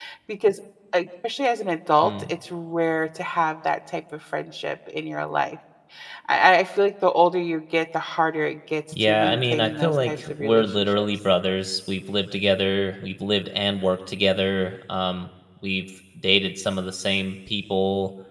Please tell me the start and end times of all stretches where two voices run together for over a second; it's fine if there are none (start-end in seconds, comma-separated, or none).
9.0-11.1